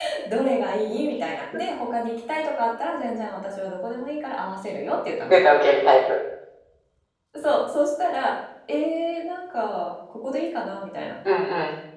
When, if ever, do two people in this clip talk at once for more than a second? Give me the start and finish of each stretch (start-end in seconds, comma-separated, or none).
none